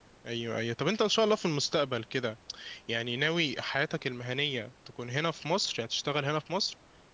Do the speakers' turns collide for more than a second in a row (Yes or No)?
No